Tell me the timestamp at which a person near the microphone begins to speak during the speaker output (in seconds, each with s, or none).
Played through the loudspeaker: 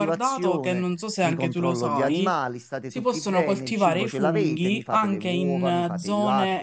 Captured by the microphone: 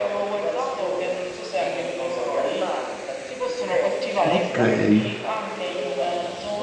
4.2 s